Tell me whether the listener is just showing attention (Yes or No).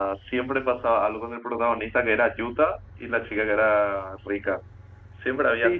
No